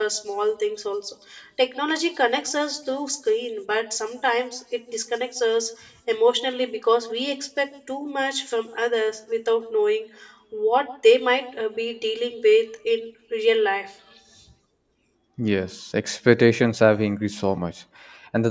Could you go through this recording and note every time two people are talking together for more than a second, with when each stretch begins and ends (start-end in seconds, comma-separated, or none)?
none